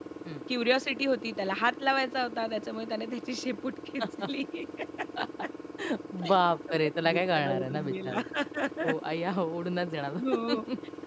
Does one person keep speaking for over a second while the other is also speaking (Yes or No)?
Yes